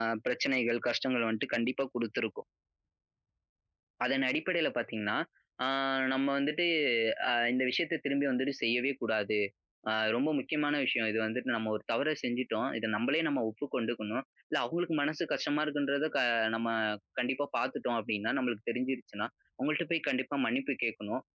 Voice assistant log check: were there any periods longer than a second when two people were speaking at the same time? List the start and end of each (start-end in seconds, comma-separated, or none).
none